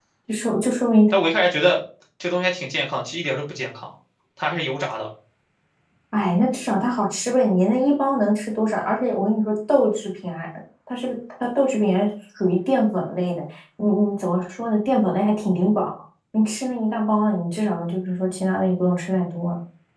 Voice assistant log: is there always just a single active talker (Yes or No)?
Yes